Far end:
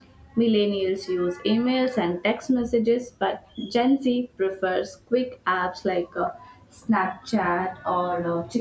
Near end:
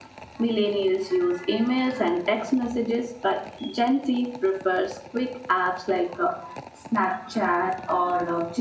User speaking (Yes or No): No